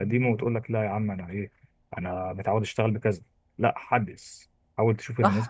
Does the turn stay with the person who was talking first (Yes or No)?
No